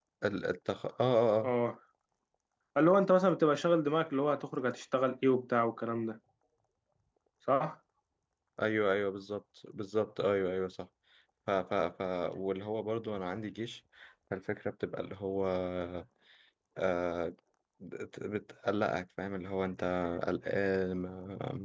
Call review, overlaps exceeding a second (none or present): none